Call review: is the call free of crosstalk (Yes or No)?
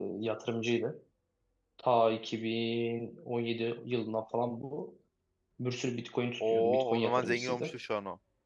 No